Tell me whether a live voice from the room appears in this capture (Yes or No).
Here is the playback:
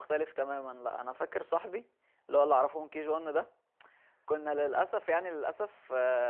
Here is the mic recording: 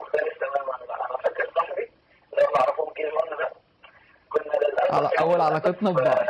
Yes